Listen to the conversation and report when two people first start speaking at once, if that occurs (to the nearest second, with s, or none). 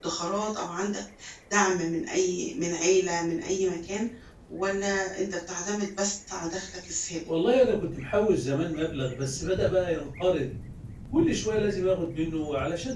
none